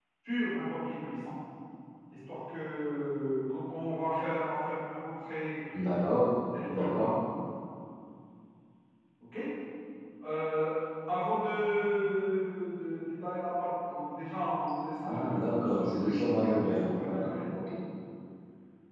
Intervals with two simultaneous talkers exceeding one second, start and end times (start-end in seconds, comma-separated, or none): 15.0-17.4